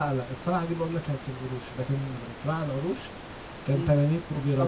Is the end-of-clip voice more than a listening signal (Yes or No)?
Yes